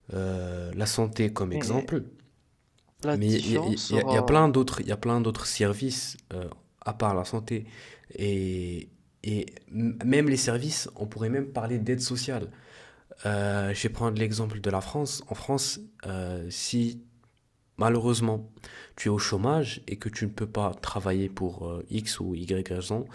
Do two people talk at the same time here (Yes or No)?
Yes